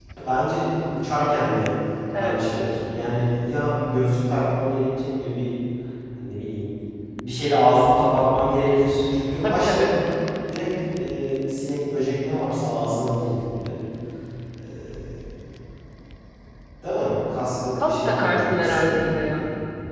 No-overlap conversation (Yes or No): No